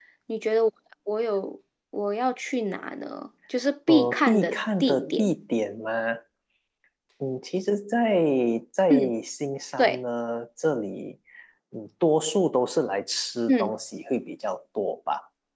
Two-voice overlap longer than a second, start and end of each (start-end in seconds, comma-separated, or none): 3.9-5.3